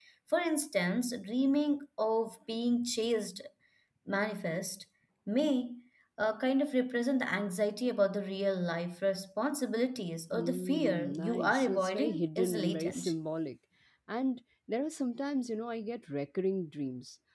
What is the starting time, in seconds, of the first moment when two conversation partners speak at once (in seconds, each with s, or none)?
10.3 s